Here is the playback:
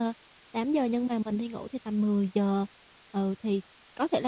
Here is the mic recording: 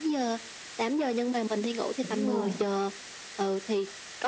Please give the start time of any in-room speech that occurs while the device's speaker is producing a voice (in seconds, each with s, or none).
2.0 s